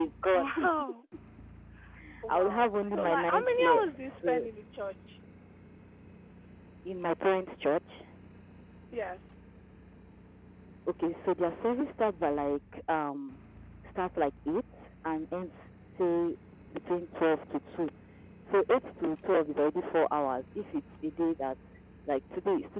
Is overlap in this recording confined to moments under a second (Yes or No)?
No